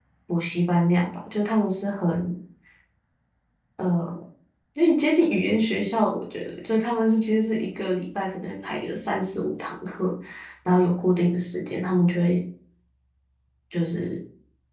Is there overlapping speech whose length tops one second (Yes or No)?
No